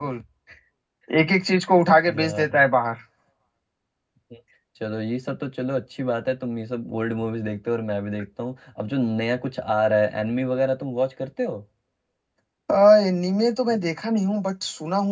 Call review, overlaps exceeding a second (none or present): none